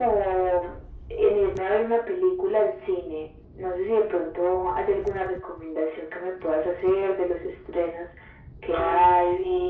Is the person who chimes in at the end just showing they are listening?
No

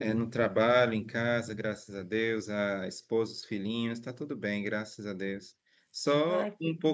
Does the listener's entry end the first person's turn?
No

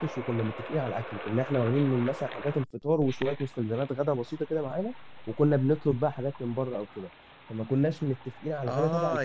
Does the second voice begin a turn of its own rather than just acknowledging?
Yes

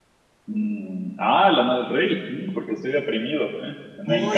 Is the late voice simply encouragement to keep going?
No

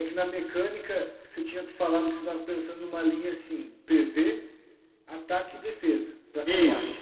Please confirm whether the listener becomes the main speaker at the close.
Yes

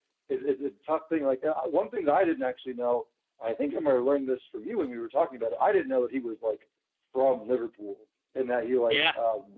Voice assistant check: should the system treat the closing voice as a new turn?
No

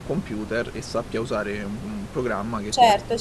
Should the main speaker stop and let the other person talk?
Yes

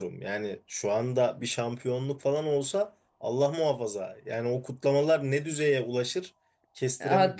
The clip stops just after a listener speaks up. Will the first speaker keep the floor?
No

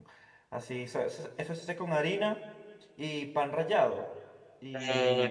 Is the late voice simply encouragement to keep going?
No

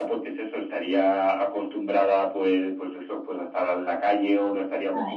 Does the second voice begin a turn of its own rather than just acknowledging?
No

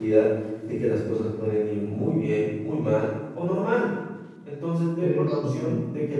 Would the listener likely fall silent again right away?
Yes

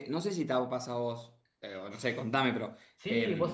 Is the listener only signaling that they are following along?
No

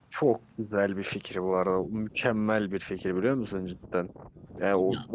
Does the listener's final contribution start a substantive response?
No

